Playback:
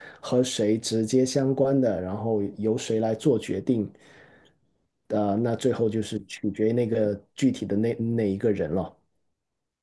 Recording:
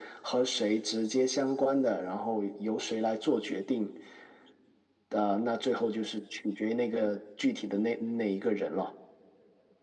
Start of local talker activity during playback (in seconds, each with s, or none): none